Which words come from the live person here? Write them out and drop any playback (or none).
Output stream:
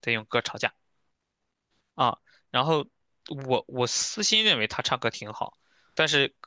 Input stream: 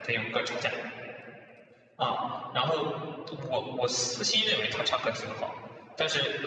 none